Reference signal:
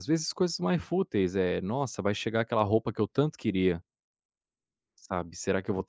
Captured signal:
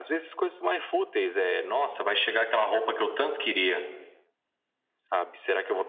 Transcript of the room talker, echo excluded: none

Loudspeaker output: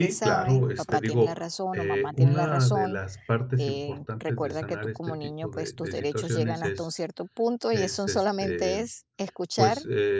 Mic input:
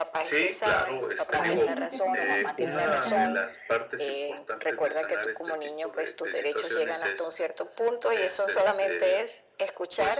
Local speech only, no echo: a veces no es que son frágil, sino que están

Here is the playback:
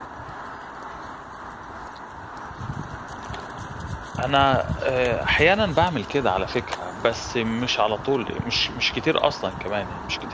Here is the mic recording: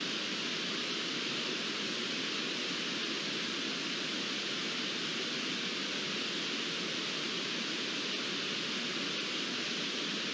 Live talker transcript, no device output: none

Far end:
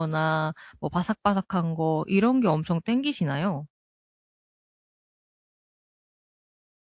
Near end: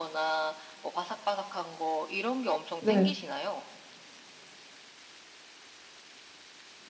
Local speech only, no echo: 네.

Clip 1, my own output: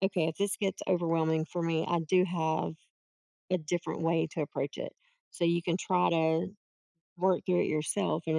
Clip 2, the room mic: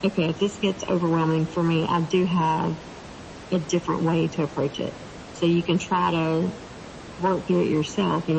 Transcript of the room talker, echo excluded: none

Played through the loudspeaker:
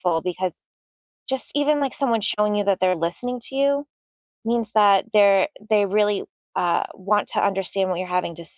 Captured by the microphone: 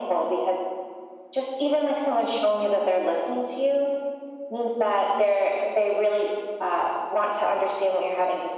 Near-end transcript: none

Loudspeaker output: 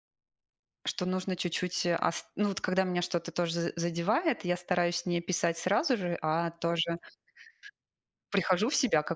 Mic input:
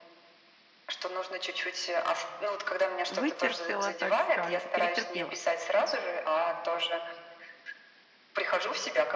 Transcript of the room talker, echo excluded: вытерпела, так скажем, перетерпела.

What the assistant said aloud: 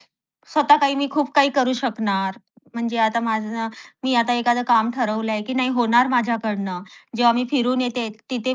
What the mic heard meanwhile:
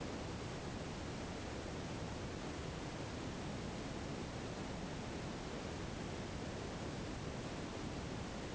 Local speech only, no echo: none

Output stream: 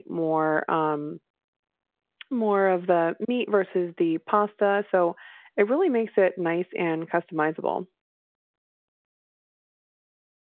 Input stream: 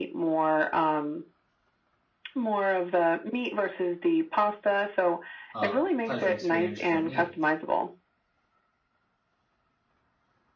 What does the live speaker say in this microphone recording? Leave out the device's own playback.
uh, pleasuring experience for me.

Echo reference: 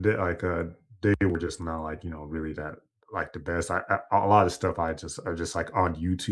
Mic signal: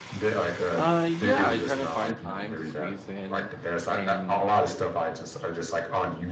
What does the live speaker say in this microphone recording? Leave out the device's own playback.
Uh, yeah, I kind of find time to squeeze in and and

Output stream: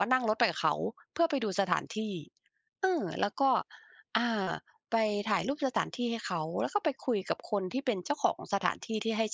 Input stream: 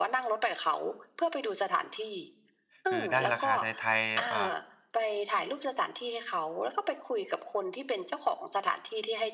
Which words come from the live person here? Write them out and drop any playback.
คือได้ราคาไทยๆอ่า

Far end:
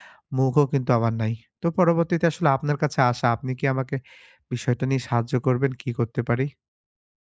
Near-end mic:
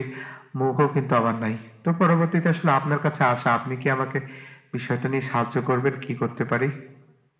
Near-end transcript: none

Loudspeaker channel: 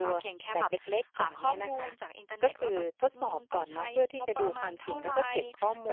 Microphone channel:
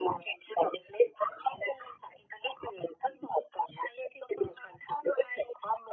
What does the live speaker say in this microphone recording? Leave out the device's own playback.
none

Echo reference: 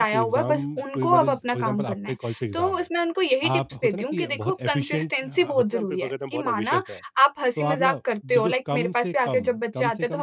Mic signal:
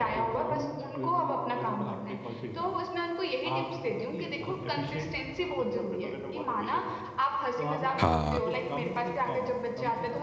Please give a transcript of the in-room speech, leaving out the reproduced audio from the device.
हाँ।

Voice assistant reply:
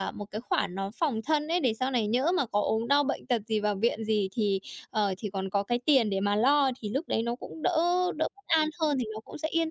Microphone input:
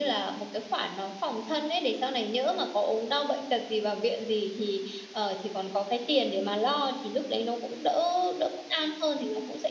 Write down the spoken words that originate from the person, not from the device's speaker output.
none

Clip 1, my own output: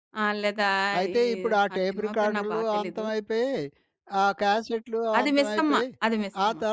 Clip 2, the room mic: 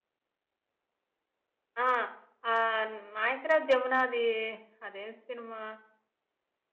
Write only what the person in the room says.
ఆ! ఆహ్, నాగేశ్వరరావు, జమునాది అదేం సినిమా?

